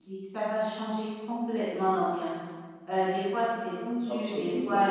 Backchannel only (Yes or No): Yes